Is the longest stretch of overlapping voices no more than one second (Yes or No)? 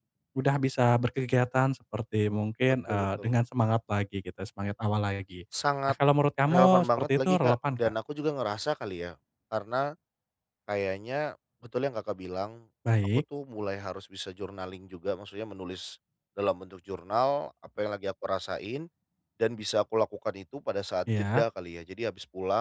No